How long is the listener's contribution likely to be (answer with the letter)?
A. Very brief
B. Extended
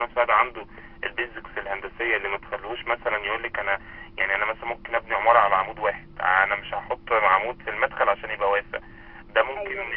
B